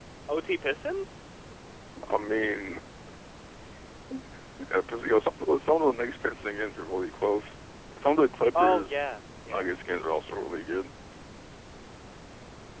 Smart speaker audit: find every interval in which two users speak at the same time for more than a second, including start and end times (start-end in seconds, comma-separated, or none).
none